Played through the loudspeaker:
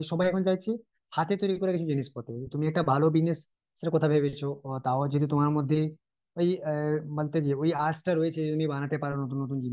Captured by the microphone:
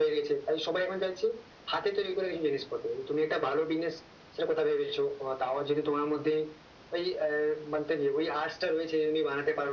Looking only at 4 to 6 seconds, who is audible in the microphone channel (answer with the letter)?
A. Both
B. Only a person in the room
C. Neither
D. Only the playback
D